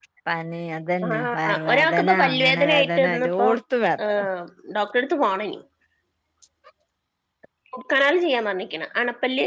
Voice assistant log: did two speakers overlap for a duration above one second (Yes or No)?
Yes